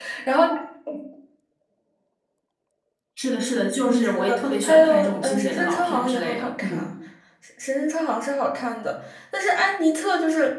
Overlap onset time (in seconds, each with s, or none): 4.0 s